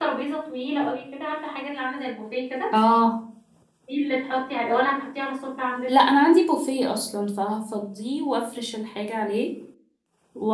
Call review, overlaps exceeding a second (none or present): none